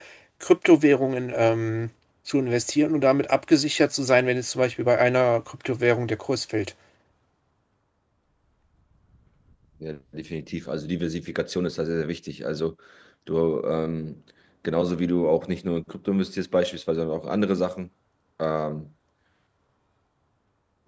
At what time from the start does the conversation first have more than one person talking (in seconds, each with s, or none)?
none